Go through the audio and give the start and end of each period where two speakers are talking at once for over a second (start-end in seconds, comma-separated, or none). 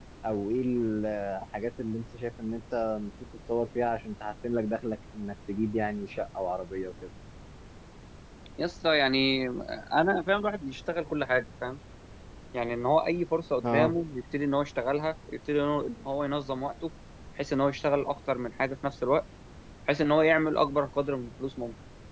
none